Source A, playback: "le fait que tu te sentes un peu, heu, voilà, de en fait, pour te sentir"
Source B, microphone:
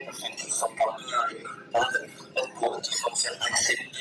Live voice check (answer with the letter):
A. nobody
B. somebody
A